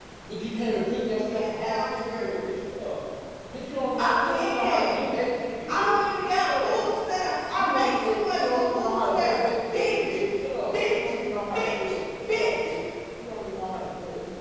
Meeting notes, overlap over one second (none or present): present